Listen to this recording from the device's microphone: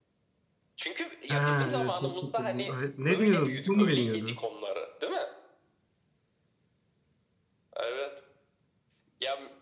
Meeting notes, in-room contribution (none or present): present